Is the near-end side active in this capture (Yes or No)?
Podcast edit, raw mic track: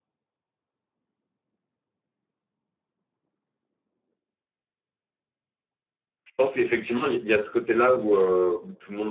Yes